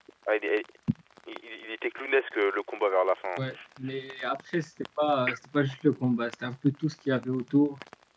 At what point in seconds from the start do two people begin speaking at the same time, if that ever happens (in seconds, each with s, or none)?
none